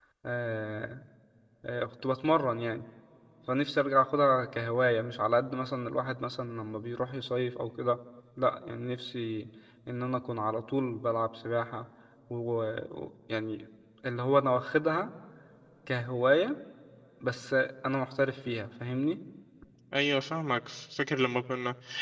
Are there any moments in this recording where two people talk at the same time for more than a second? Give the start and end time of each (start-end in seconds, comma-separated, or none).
none